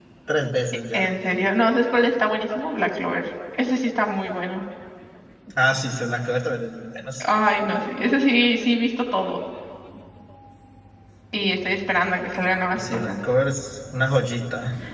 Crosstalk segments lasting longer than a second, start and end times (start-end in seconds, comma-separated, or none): none